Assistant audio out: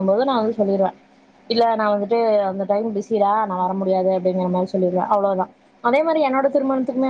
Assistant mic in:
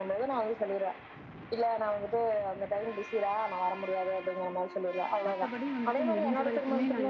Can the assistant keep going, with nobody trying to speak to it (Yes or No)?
No